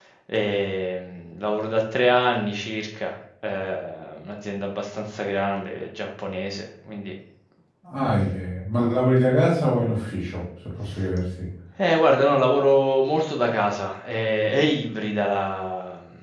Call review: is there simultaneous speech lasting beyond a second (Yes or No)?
No